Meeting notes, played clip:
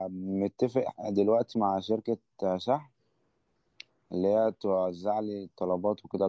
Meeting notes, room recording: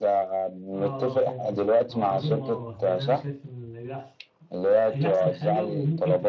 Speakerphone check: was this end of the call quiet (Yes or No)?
No